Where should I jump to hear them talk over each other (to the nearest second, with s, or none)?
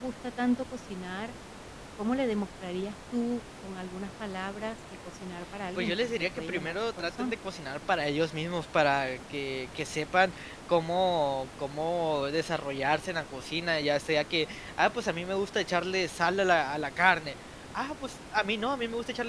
6 s